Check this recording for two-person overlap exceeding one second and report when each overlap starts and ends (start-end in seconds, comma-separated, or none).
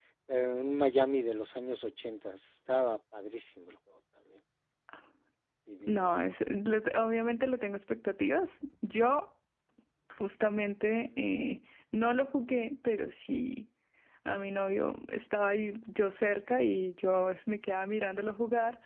none